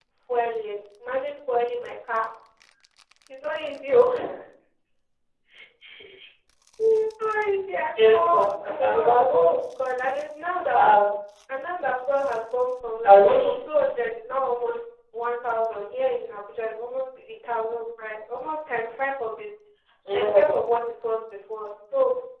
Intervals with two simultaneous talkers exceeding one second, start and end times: 8.1-9.5

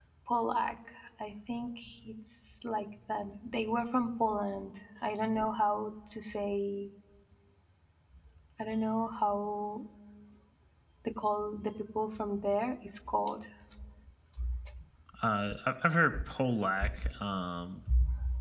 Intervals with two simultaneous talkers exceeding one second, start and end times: none

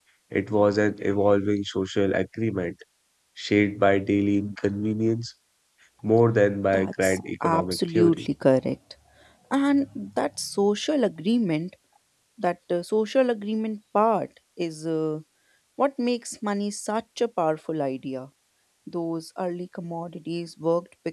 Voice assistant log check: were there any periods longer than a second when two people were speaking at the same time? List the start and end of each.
6.7-8.3

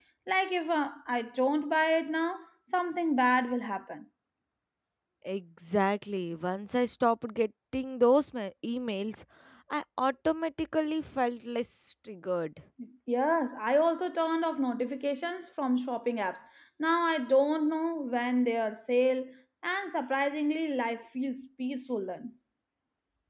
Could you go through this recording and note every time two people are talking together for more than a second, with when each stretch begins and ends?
none

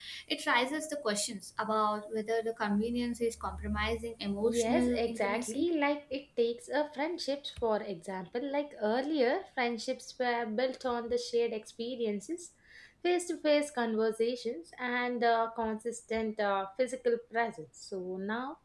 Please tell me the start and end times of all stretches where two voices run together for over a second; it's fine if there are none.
4.4-5.7

